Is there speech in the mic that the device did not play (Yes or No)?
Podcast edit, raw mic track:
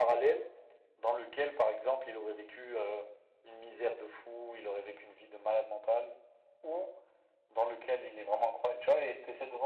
No